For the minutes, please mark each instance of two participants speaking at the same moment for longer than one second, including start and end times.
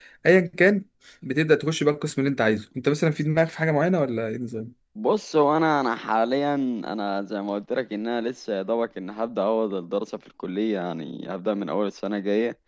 none

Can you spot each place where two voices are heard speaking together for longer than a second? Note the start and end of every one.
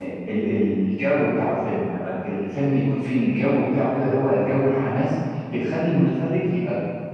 none

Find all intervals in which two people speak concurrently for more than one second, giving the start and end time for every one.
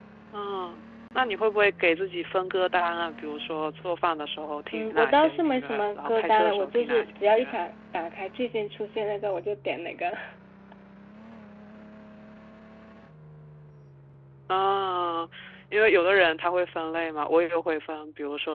4.7-7.6

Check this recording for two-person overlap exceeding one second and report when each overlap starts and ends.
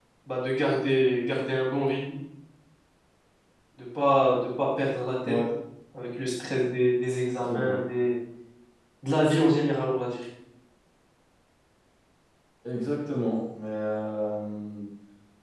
none

